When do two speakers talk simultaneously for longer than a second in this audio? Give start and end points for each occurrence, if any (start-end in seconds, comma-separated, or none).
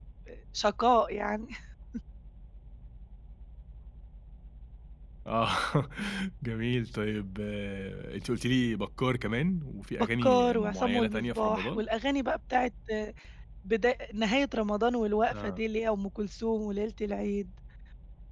9.9-11.8